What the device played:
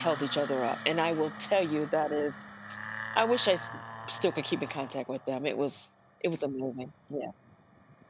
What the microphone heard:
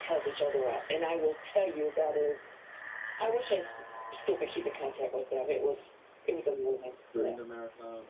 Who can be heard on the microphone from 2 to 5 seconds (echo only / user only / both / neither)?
echo only